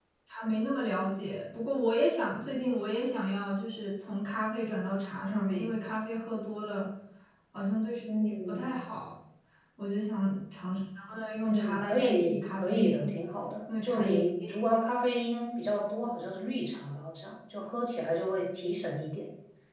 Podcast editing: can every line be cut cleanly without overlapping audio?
No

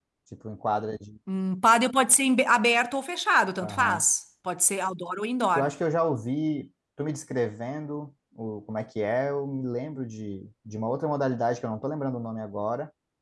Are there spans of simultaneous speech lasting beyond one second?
No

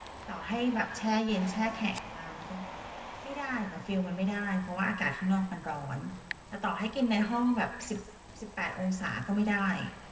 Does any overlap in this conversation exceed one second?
No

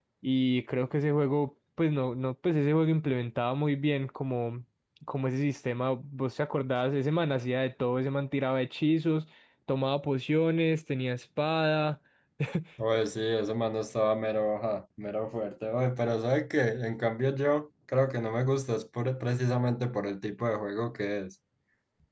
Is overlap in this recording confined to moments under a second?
Yes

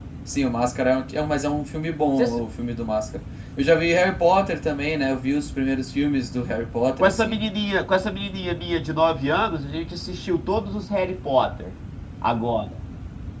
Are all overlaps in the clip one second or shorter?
Yes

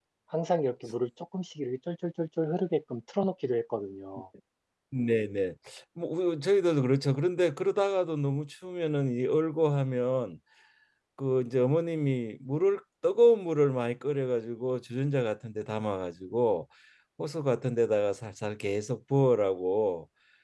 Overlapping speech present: No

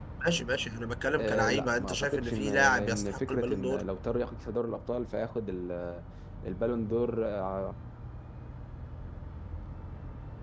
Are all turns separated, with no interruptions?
No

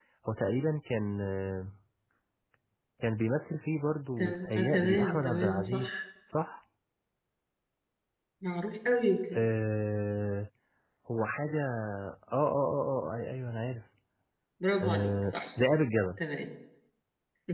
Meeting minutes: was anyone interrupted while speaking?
Yes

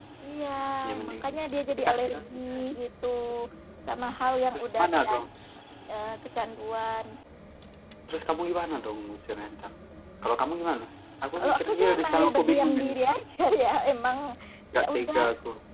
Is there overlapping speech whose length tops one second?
Yes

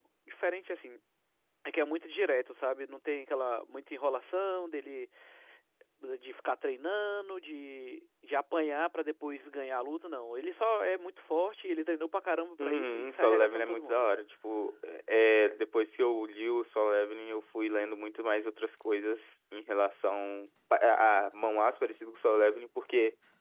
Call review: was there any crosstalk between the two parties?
Yes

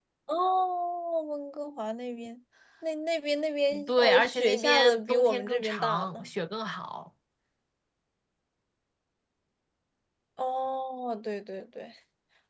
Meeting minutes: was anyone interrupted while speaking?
Yes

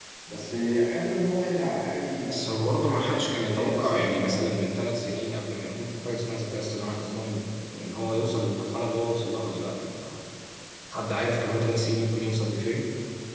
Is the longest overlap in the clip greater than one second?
Yes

